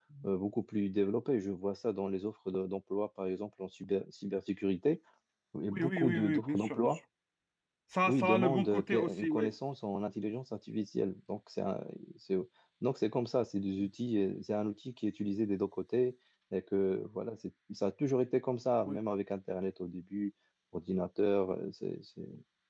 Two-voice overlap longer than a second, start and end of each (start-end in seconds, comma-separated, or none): 5.7-7.0, 8.0-9.5